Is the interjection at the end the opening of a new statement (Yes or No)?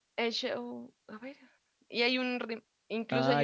Yes